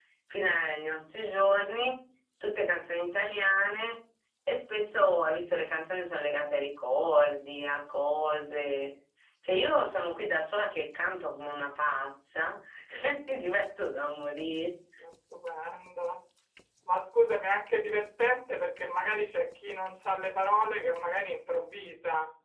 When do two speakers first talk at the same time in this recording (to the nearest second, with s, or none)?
none